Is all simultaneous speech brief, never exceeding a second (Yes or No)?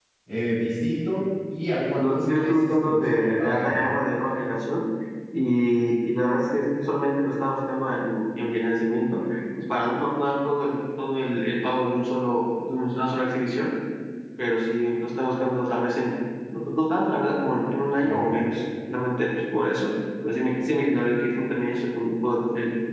No